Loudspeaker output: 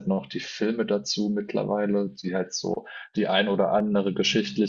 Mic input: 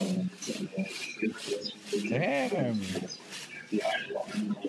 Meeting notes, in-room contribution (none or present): present